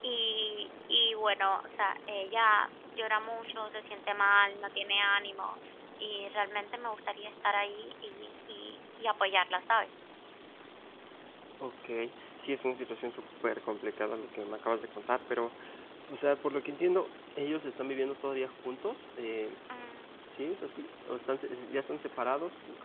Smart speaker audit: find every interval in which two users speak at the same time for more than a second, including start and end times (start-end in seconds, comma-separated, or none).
none